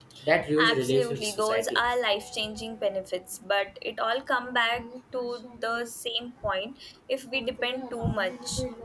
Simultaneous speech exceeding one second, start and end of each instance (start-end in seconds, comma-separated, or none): 0.6-1.8